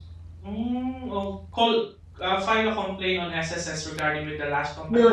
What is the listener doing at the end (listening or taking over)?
taking over